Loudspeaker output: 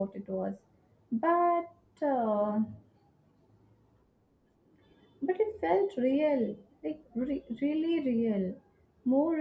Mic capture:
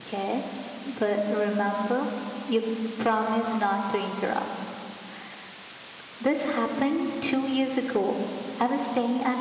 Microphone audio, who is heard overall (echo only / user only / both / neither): user only